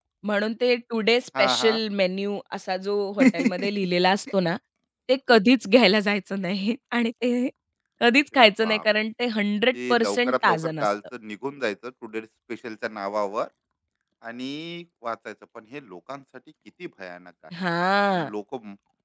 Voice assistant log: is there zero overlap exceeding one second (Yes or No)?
No